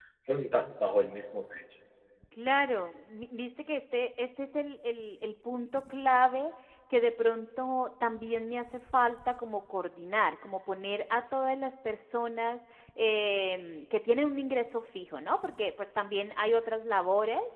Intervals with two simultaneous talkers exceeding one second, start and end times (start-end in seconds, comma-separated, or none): none